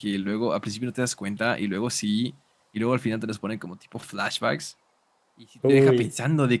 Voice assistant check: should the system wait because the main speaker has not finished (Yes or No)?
Yes